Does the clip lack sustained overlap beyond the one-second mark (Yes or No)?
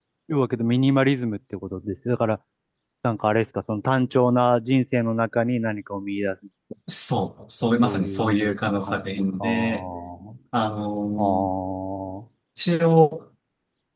No